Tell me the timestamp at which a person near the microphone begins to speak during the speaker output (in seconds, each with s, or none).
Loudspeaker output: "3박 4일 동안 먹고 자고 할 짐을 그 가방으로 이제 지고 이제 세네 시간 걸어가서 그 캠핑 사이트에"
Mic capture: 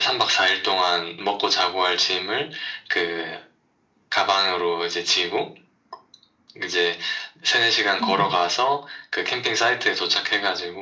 8.0 s